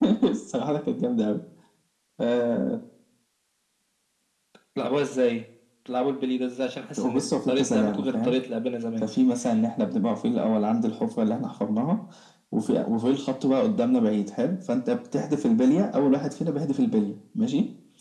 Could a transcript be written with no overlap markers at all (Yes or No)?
No